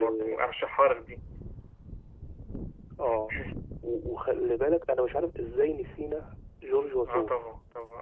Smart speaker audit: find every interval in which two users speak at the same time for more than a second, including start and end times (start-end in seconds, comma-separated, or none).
none